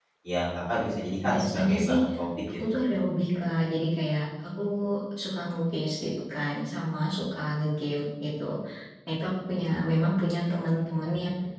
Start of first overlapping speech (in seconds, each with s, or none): 0.7 s